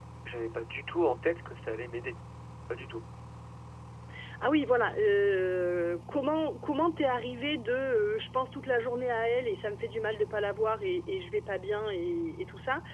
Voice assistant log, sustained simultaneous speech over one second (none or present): none